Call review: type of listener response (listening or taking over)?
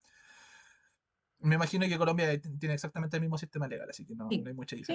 taking over